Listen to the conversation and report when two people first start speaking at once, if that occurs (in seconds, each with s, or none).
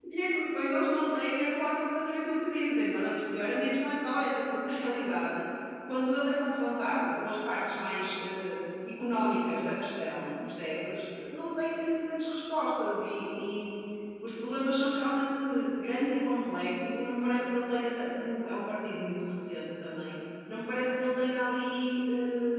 none